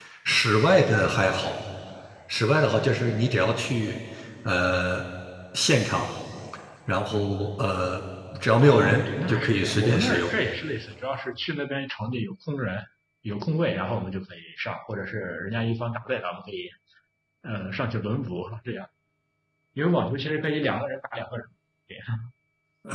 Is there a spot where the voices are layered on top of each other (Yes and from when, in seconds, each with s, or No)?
Yes, from 8.6 s